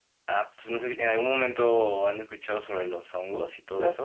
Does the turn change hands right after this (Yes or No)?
Yes